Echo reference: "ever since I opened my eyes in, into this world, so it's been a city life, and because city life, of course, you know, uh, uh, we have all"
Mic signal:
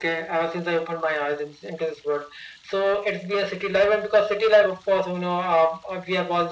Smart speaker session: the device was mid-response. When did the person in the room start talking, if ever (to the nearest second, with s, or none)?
none